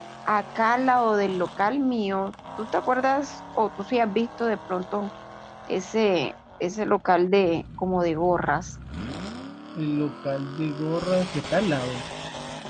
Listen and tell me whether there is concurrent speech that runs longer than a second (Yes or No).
No